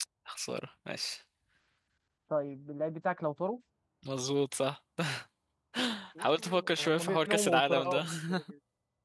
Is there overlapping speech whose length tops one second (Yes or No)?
Yes